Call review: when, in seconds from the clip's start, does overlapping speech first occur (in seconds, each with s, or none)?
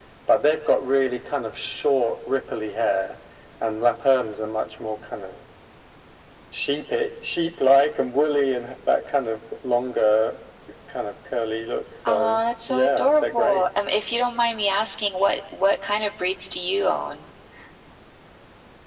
12.1 s